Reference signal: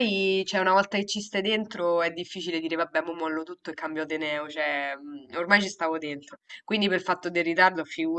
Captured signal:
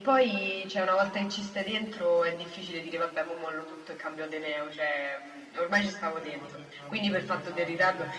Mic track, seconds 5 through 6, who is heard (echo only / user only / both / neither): echo only